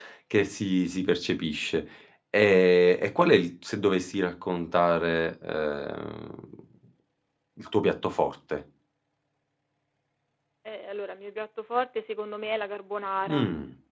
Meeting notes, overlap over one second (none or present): none